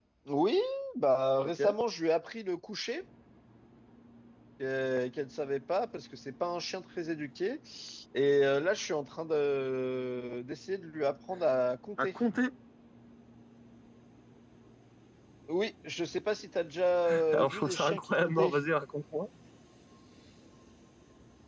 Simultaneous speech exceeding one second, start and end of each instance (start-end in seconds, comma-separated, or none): 17.3-18.5